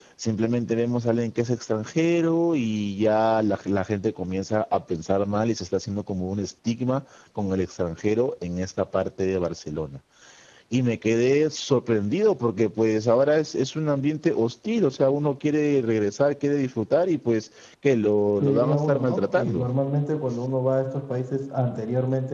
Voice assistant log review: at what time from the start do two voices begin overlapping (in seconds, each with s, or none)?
18.4 s